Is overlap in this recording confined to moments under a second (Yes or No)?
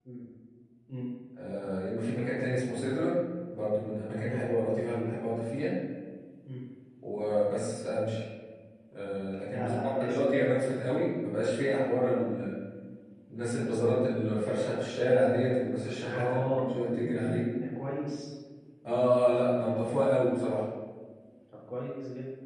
No